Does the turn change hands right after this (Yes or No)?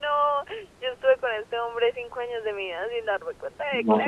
Yes